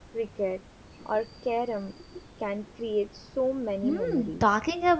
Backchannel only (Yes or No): No